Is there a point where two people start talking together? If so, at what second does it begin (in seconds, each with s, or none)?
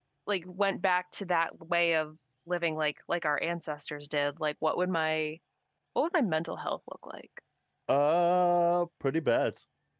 none